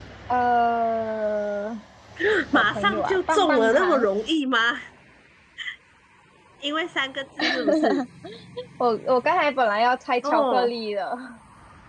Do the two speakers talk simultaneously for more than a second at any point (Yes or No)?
Yes